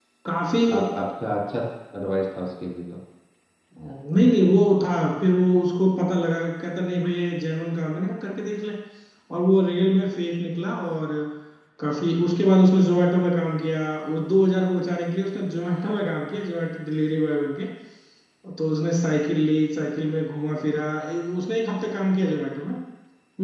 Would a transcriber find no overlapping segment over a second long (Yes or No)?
Yes